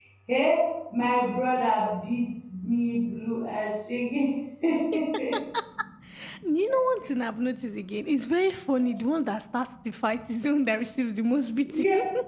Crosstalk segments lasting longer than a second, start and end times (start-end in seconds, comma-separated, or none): none